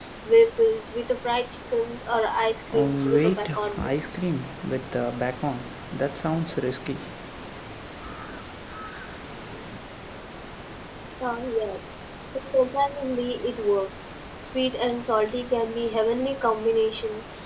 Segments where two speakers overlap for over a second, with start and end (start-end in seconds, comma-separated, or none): 2.7-4.2